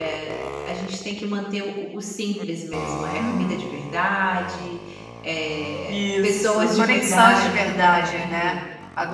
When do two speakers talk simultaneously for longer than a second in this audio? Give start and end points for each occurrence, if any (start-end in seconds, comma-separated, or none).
5.9-8.5